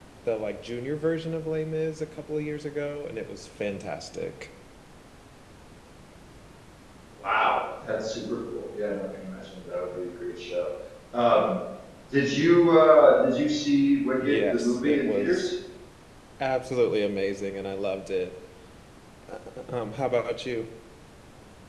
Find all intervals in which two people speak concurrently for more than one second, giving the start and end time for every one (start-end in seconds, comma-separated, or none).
14.2-15.5